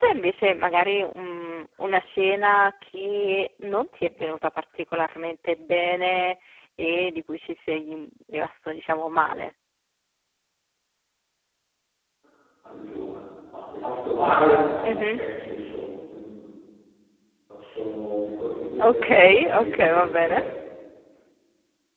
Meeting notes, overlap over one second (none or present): present